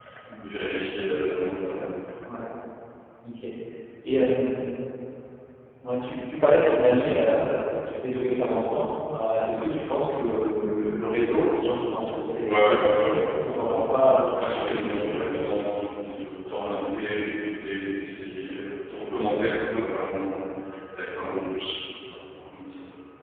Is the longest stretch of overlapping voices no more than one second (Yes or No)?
No